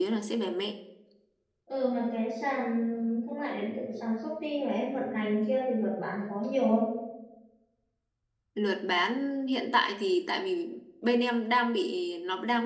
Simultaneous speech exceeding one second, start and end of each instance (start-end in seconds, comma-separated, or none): none